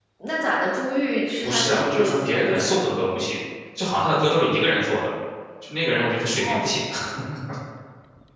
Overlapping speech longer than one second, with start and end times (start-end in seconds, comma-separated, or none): 1.4-3.0